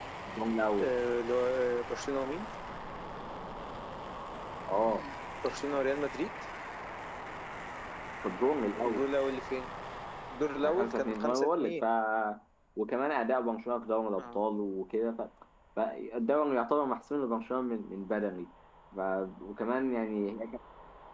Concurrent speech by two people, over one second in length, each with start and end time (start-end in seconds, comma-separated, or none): 10.6-11.8